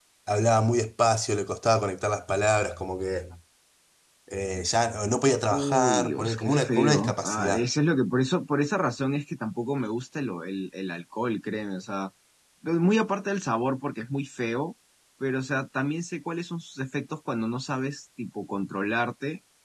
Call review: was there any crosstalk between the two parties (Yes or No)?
Yes